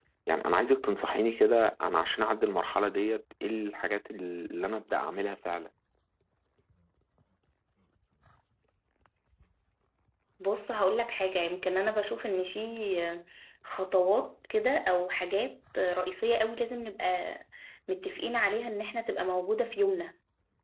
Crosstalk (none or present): none